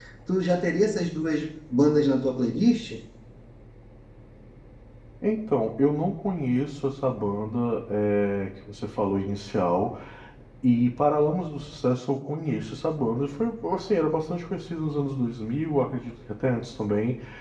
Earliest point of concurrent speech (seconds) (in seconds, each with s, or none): none